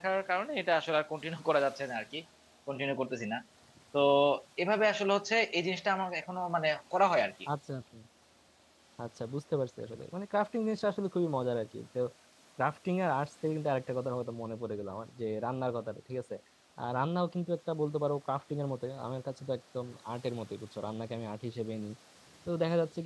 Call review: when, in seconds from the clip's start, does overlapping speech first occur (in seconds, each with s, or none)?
none